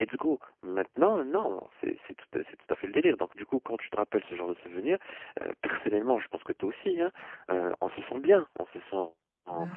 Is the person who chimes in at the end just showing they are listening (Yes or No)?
Yes